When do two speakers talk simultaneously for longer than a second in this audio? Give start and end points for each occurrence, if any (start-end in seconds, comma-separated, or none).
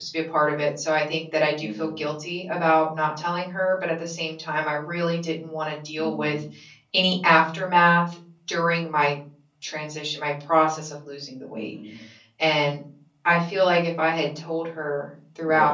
none